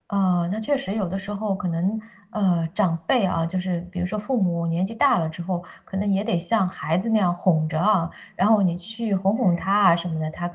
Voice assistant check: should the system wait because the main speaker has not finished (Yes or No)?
Yes